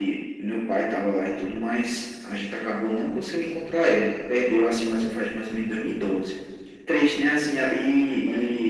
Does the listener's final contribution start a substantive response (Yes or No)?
No